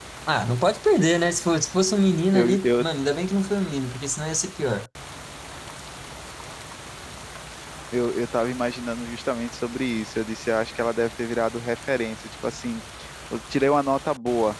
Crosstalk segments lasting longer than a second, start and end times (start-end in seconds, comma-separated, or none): none